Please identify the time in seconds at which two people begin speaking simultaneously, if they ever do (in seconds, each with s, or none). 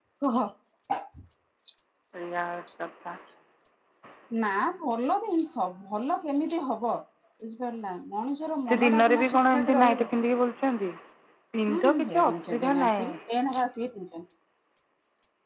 8.7 s